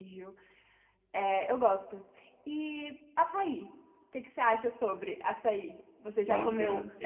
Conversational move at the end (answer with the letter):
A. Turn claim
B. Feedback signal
A